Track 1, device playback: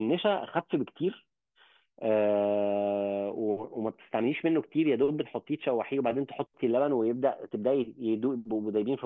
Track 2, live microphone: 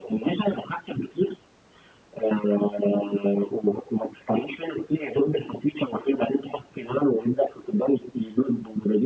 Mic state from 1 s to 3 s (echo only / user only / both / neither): echo only